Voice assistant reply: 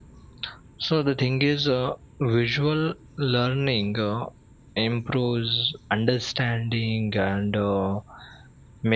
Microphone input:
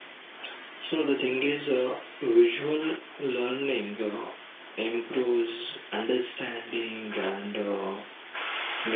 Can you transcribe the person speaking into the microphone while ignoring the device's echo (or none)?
none